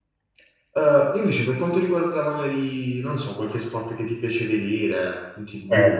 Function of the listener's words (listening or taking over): taking over